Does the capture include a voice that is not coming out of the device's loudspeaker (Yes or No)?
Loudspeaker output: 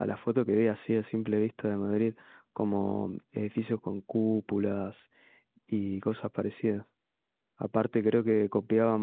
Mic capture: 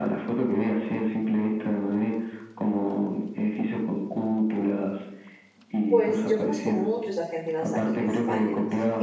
Yes